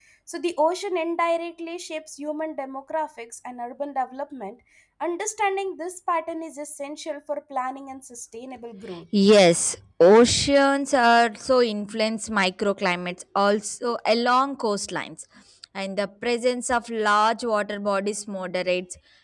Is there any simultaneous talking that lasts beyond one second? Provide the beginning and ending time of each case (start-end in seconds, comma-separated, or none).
none